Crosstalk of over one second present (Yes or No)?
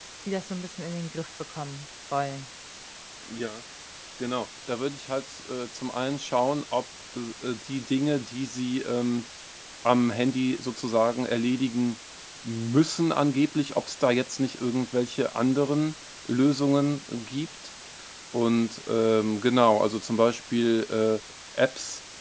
No